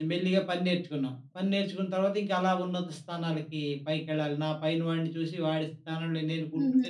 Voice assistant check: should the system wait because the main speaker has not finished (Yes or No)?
No